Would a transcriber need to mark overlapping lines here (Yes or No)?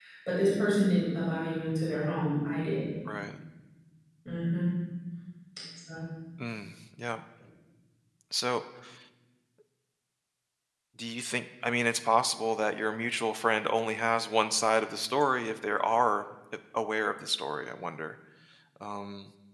No